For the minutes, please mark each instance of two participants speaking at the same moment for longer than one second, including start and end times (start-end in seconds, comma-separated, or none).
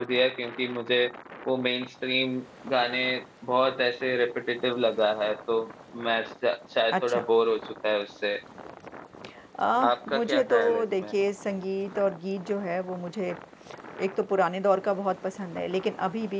9.8-11.0